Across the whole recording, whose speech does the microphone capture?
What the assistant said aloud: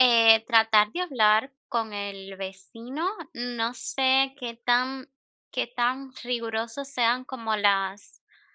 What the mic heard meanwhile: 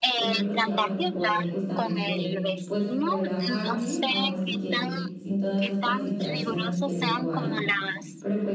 both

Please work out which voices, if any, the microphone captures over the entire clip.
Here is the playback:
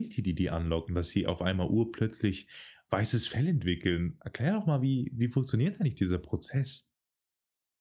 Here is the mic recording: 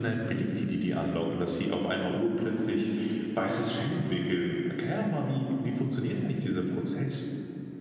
echo only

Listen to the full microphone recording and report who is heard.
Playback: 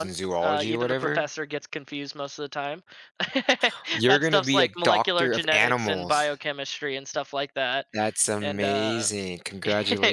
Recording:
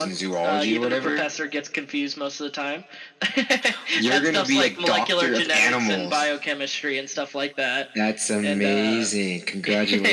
echo only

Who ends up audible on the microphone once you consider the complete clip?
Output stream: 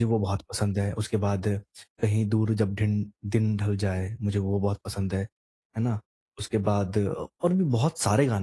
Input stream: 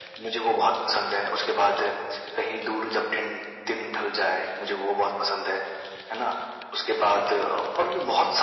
echo only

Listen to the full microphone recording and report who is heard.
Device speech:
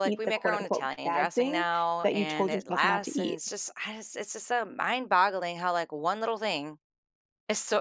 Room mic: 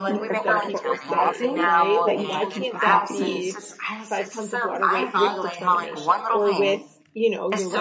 both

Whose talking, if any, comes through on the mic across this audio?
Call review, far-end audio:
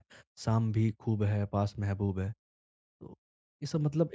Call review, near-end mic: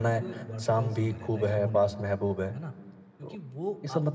both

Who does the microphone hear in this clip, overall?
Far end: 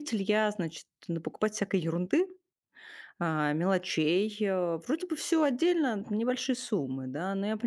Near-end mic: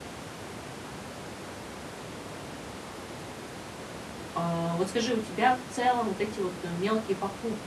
user only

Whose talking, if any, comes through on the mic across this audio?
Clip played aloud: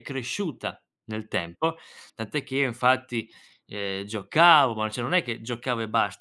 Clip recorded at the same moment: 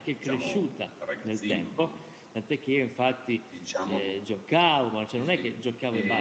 both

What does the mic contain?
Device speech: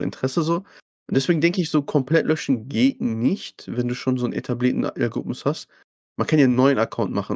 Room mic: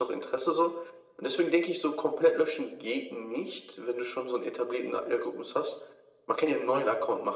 echo only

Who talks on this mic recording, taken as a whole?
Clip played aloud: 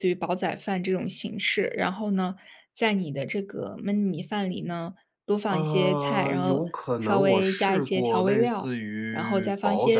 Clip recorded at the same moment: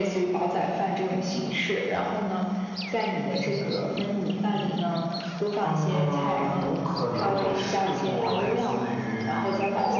echo only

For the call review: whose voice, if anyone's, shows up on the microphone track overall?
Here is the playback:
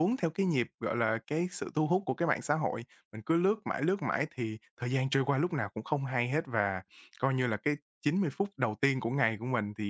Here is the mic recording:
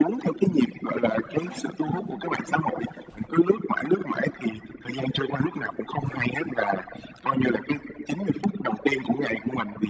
both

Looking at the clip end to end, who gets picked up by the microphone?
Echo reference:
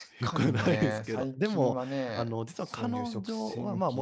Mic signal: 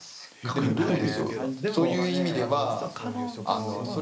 both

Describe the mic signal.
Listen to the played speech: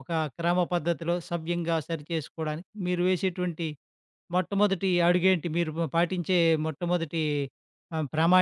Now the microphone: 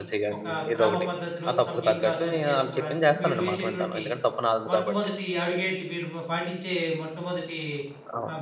both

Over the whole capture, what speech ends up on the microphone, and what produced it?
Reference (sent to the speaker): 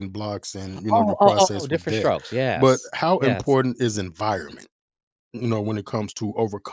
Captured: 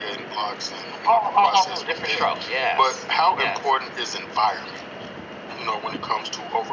echo only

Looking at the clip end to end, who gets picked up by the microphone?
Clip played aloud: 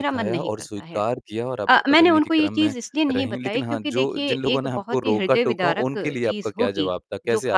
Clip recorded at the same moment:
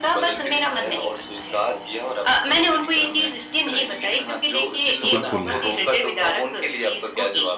both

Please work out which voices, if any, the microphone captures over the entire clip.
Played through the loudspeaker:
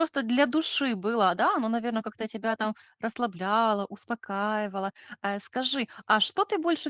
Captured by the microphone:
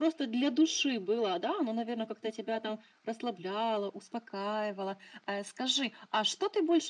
echo only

